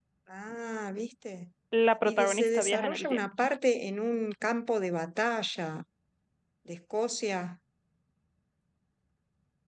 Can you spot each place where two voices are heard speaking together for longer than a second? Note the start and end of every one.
2.0-3.2

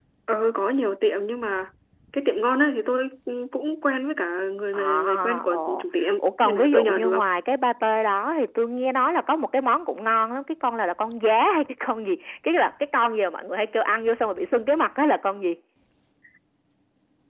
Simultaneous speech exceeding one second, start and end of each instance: 4.8-7.2

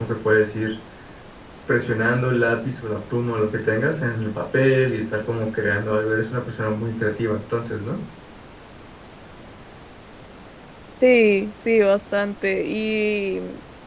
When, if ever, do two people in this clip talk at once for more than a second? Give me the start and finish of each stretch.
none

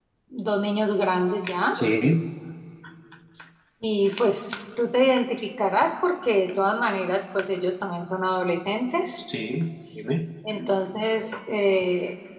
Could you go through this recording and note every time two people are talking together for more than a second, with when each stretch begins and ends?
none

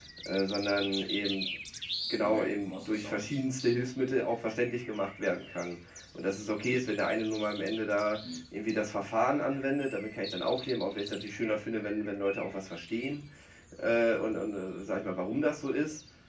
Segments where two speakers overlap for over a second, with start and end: 2.2-3.9

